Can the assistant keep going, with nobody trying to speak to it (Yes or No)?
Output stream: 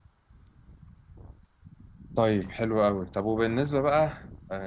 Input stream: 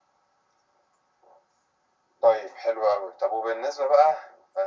Yes